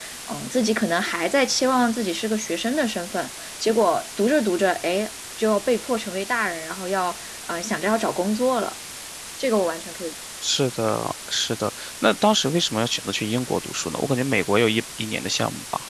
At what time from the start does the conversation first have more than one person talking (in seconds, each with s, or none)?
none